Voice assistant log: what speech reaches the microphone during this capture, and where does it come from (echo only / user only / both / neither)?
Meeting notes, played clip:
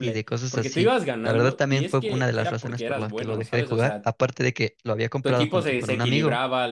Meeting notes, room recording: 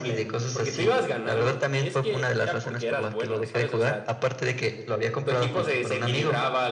echo only